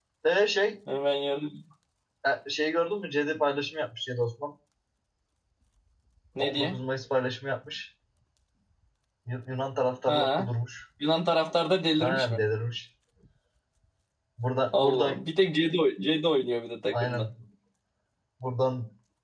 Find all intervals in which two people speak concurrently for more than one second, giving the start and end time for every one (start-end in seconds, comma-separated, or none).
none